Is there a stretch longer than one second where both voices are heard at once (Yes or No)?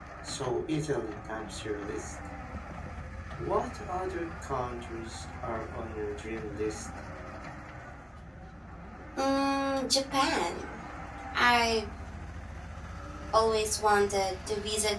No